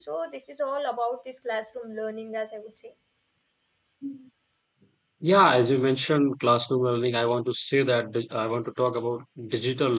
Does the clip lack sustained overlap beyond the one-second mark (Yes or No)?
Yes